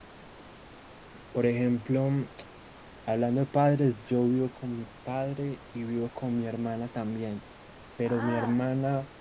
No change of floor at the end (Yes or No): Yes